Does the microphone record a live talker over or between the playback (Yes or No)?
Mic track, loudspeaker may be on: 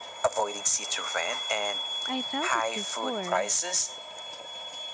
Yes